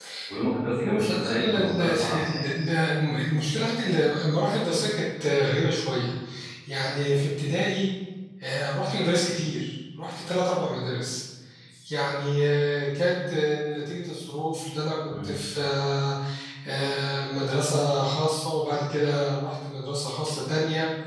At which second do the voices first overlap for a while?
1 s

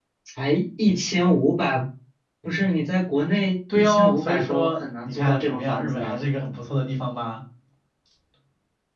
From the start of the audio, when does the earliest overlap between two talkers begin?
4 s

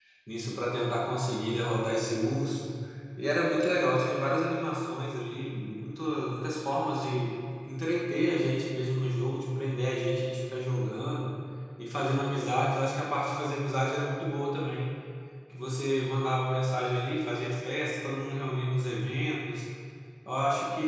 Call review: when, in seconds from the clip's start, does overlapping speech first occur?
none

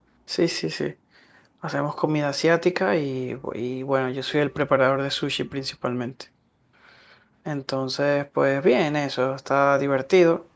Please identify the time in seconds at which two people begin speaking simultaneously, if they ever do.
none

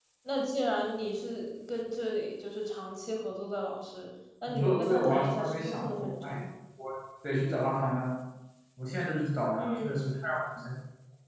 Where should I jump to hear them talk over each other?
4 s

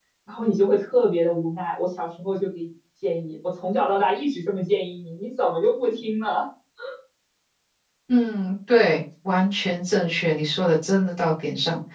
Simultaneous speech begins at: none

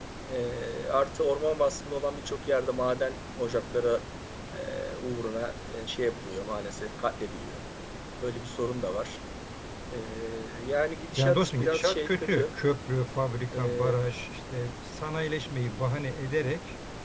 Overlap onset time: 11 s

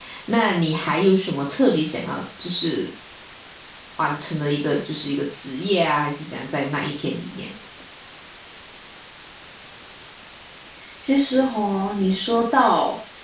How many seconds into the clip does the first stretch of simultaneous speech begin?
none

